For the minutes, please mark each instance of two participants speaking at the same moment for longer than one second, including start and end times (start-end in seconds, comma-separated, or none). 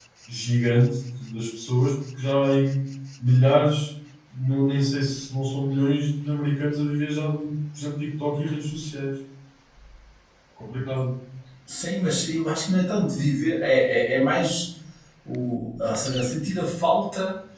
none